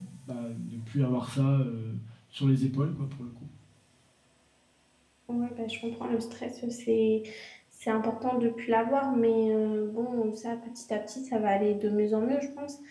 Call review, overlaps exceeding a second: none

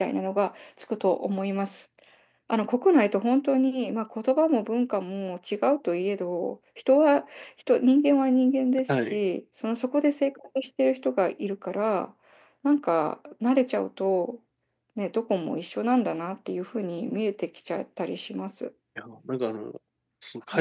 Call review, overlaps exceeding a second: none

